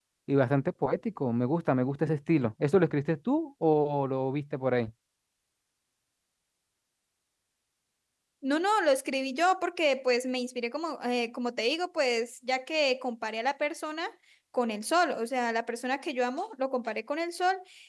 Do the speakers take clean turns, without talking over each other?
Yes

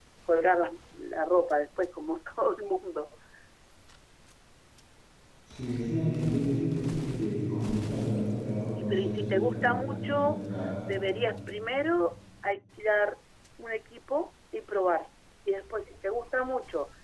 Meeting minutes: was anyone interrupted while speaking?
Yes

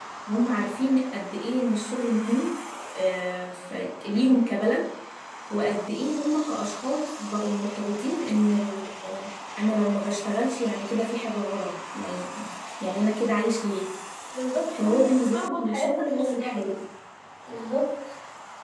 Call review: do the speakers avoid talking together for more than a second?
No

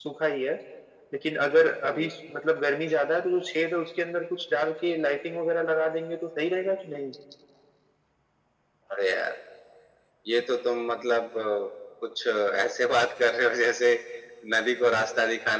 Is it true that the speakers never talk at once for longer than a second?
Yes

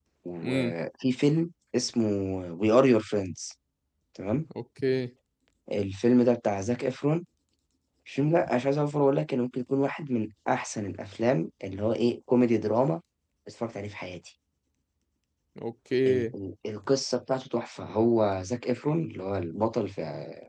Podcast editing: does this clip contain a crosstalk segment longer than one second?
No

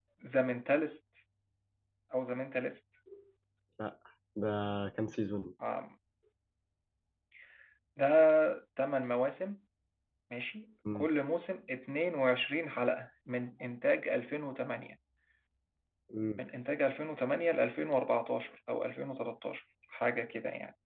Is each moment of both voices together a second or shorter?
Yes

